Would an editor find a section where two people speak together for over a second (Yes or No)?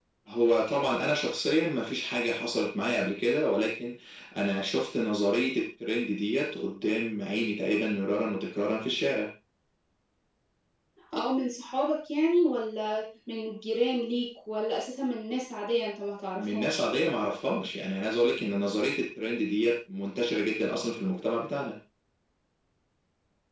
No